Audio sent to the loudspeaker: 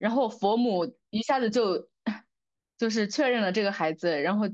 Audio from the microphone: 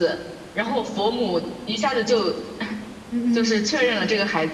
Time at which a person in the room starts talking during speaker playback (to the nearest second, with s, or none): 3 s